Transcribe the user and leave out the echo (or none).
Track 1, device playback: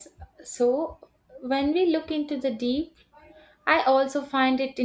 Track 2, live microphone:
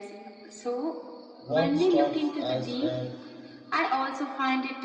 What starts as a